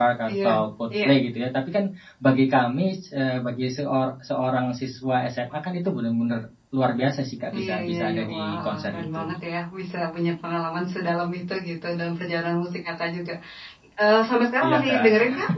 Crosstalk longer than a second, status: present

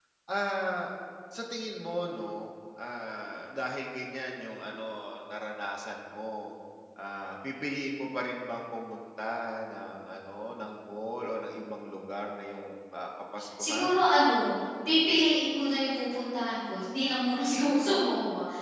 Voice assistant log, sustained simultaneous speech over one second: none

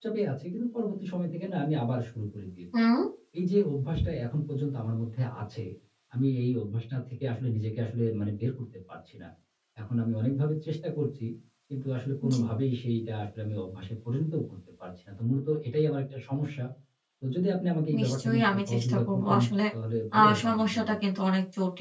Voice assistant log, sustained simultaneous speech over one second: present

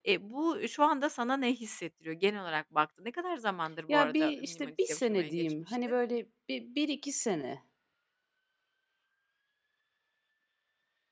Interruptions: present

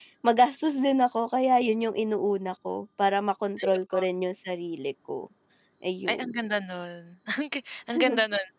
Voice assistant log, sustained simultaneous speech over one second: none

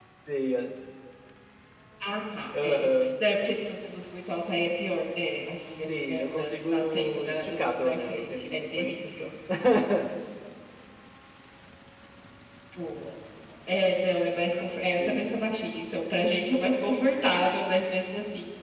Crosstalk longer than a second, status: present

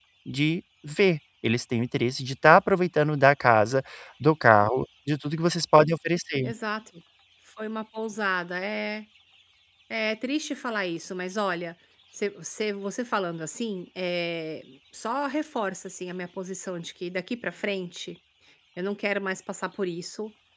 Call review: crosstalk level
none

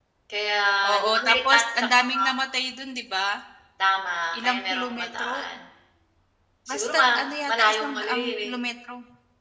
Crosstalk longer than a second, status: present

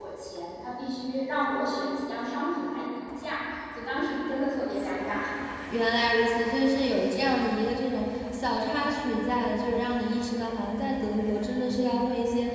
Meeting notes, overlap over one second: none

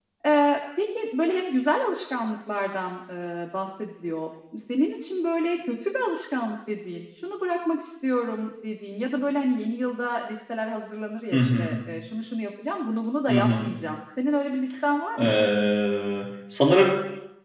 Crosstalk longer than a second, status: none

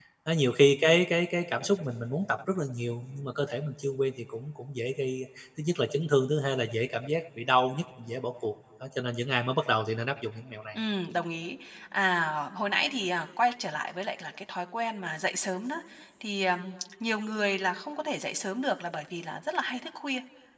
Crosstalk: none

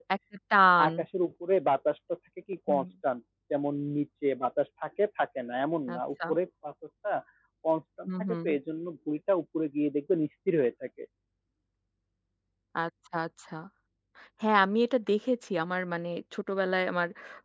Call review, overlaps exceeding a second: none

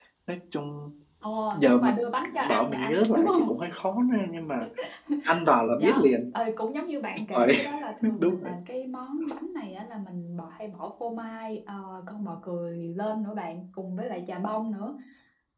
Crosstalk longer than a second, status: present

